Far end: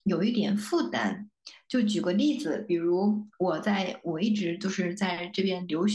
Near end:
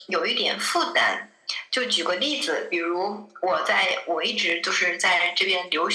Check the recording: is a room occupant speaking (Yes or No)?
No